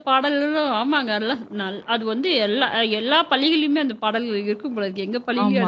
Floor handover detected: Yes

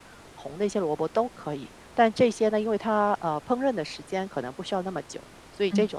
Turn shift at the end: No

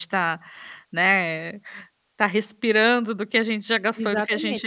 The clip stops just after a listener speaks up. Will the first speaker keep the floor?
No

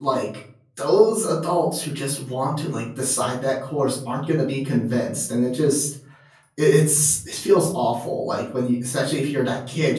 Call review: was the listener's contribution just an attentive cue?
Yes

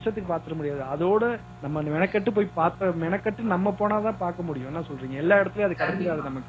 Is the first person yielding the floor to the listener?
Yes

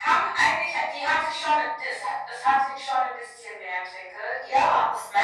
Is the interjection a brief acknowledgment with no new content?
No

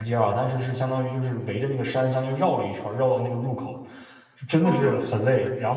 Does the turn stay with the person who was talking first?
Yes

